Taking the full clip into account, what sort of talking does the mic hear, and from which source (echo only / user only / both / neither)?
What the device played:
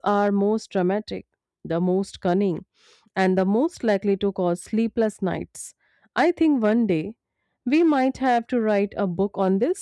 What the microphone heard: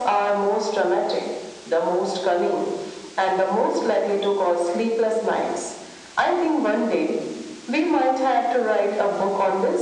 echo only